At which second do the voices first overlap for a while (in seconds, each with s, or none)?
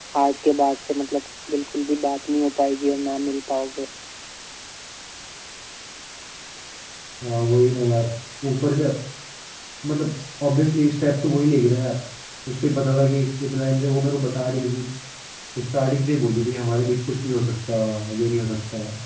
none